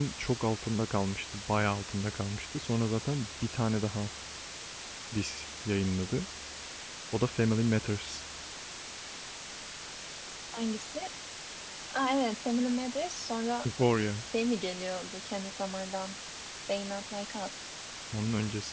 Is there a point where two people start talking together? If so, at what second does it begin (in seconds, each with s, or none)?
none